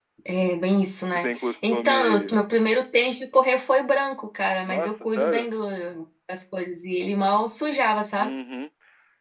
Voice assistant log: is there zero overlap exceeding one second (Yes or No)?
No